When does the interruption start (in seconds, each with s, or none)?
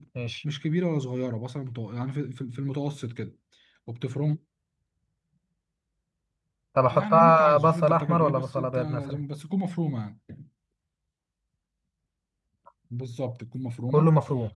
6.9 s